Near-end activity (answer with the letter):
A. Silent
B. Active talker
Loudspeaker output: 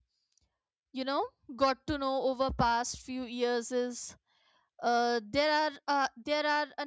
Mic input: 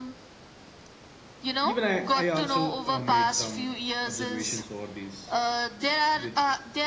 B